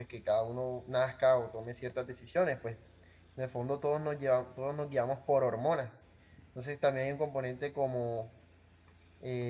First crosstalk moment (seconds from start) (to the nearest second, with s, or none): none